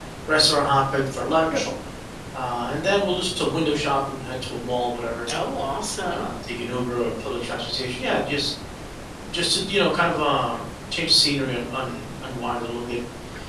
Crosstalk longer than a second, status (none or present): none